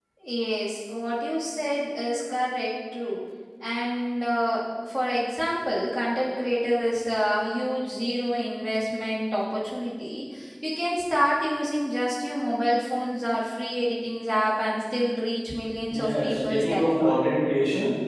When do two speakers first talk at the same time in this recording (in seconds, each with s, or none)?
15.9 s